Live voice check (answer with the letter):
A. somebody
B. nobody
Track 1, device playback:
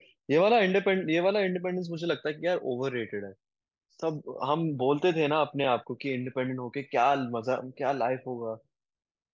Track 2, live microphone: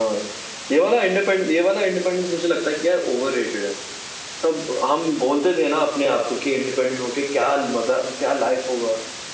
B